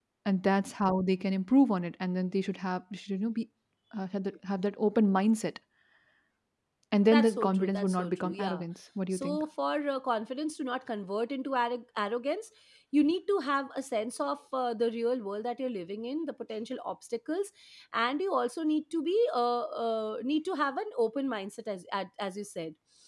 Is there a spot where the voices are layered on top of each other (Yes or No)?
Yes